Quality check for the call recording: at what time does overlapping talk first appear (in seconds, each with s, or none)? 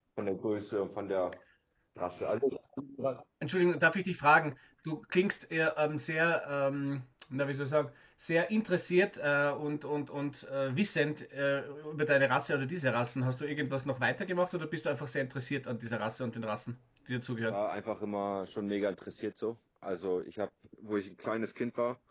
none